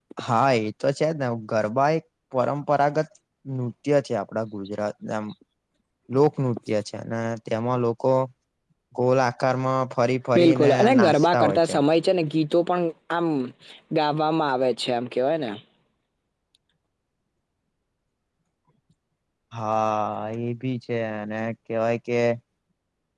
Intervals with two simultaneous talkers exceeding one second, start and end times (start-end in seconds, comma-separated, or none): 10.4-11.8